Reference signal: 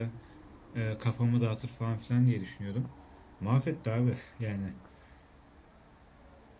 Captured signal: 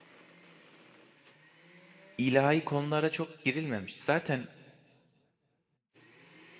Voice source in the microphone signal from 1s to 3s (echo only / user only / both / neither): user only